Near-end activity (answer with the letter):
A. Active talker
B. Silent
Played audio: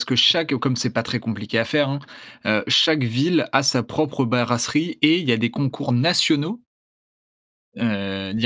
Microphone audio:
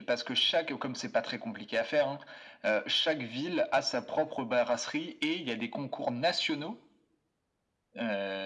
B